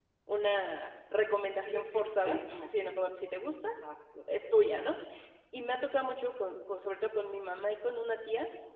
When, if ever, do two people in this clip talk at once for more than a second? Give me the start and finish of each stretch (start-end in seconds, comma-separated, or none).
1.6-2.9